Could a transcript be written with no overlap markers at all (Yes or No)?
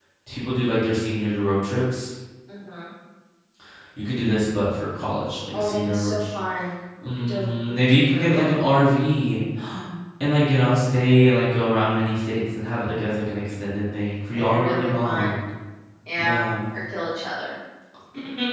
No